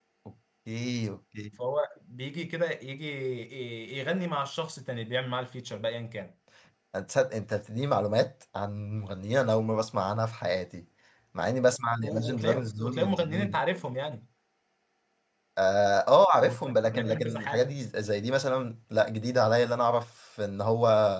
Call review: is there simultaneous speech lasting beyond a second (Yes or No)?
Yes